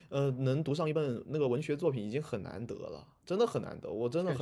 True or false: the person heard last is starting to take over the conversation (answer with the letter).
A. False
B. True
B